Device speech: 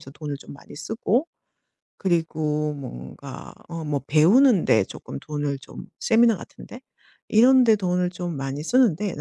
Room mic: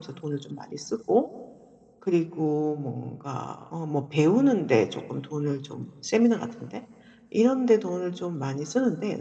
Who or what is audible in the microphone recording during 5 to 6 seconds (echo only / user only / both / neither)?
echo only